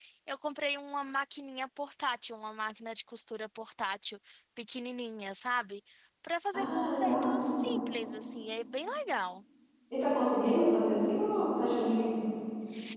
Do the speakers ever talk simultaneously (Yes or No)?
Yes